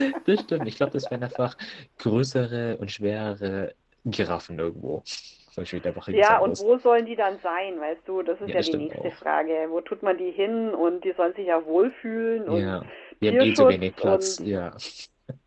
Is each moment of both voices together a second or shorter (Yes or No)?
No